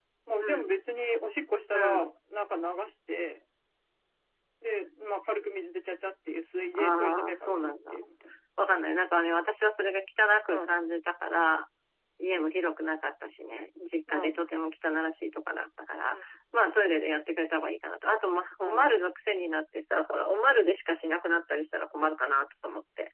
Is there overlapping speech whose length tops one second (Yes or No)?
Yes